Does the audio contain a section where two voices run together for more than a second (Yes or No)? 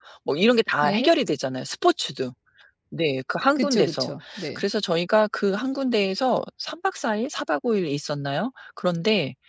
No